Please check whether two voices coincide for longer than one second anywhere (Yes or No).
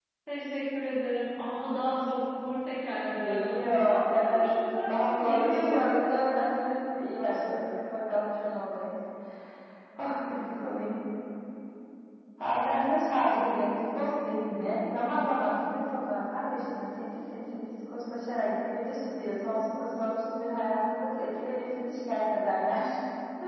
Yes